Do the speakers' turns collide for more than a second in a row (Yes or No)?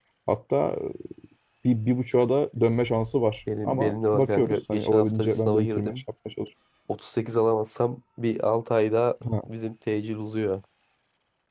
Yes